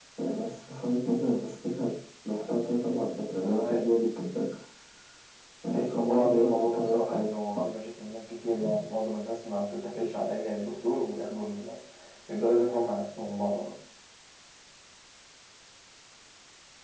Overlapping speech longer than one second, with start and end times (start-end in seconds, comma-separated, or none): 5.7-7.3